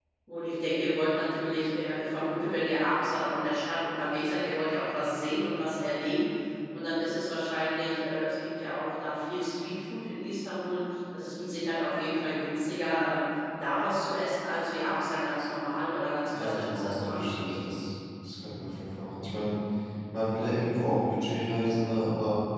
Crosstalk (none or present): present